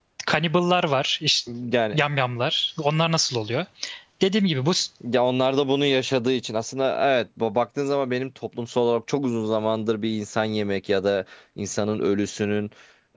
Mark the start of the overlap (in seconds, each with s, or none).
none